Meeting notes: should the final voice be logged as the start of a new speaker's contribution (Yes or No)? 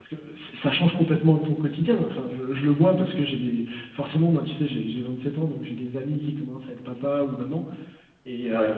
No